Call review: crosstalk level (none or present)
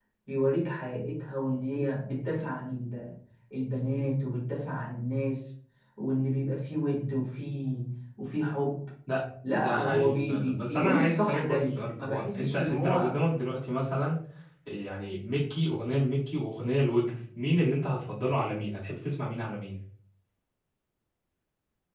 present